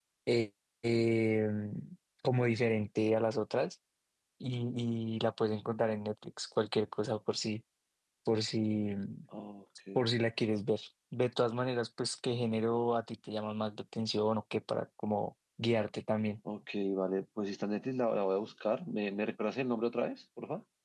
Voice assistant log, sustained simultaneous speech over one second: none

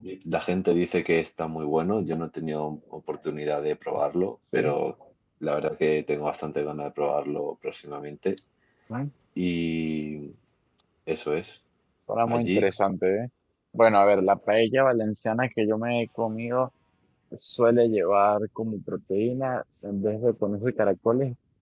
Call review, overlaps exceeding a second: none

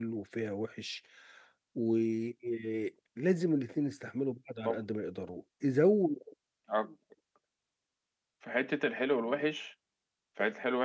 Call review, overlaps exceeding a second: none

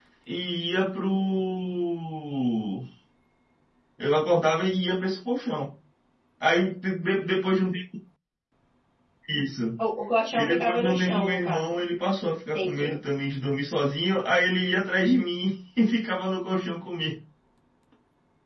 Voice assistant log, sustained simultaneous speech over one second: present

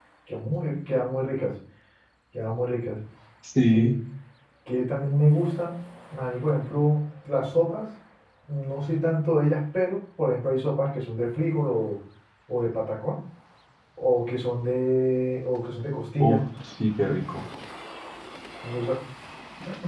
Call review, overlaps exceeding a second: none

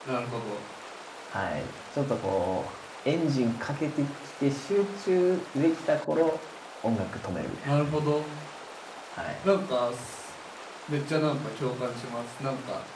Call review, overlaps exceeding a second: none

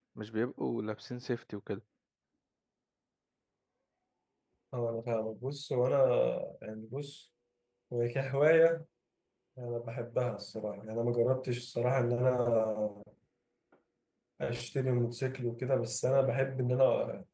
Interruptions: none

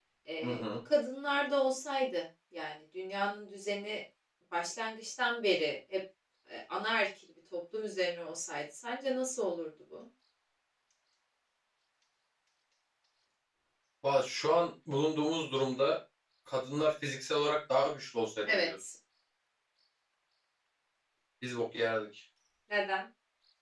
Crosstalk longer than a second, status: none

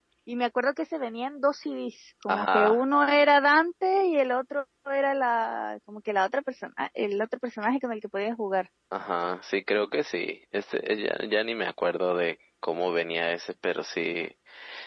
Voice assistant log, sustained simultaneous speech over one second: none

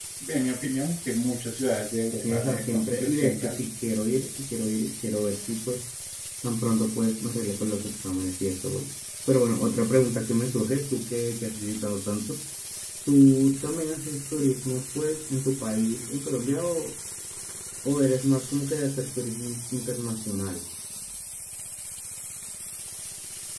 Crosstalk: present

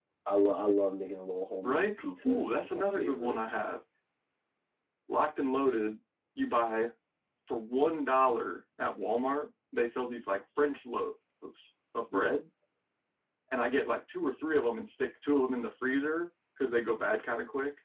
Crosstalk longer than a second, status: present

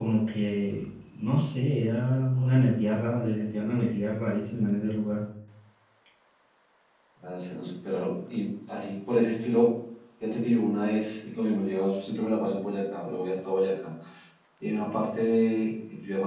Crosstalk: none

